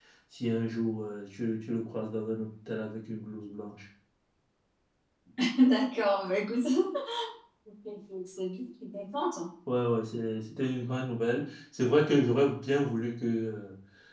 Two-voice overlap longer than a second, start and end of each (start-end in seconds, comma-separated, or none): none